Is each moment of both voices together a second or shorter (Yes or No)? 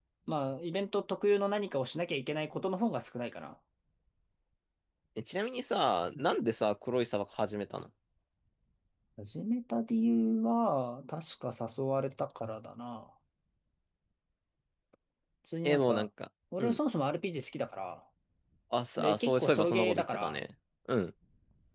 No